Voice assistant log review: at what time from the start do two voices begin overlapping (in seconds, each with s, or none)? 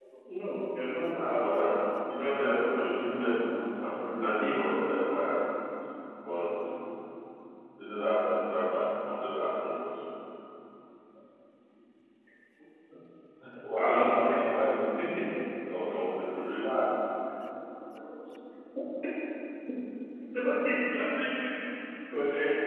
1.1 s